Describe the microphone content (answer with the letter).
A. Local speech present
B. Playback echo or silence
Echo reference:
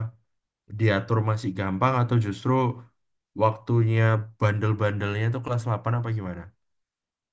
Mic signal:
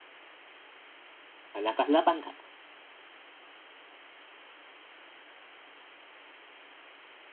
A